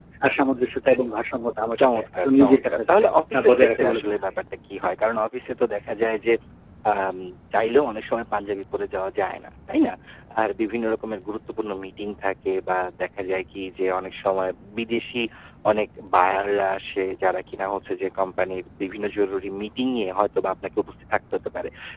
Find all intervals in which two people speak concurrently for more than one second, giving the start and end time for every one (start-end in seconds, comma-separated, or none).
1.8-4.3